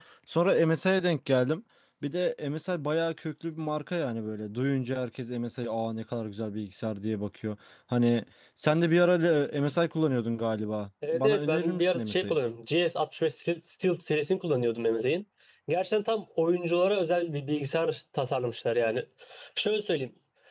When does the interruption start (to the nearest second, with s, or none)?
11 s